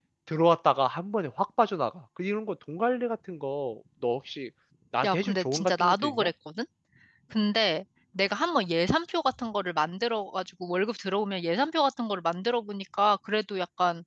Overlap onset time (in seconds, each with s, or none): 5.0 s